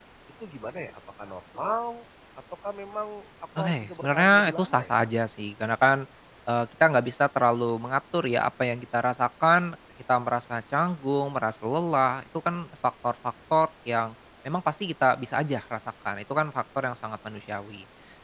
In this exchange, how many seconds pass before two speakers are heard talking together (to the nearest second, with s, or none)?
4 s